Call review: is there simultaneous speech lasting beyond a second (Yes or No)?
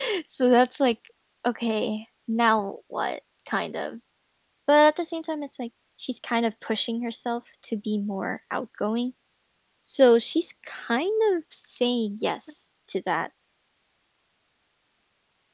No